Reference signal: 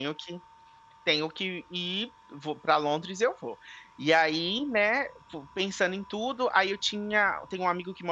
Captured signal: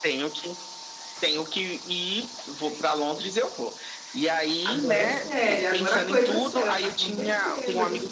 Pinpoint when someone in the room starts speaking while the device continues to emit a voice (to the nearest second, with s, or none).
5 s